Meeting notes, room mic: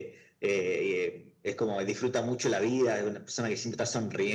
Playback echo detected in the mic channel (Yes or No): Yes